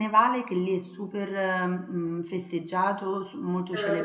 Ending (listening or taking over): listening